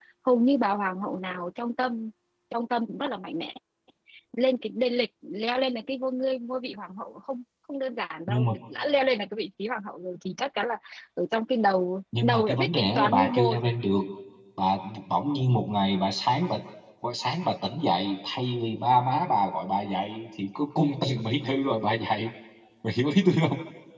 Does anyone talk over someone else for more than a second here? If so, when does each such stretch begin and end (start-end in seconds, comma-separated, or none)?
12.2-13.6